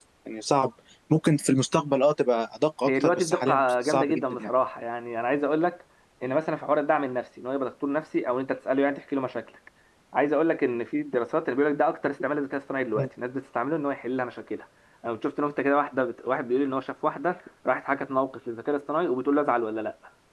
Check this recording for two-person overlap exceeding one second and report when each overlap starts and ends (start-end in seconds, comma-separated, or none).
2.9-4.5